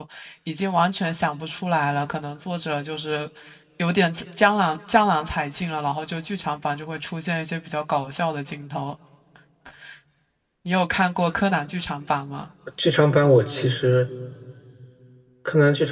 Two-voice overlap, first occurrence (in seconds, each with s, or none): none